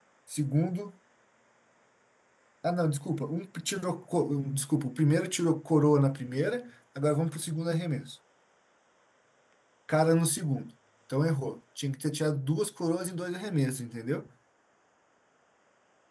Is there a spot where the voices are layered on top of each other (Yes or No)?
No